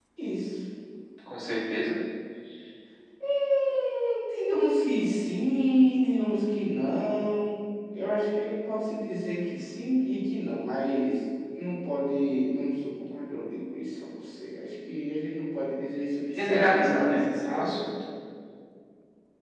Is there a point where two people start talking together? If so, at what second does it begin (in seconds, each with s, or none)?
16.3 s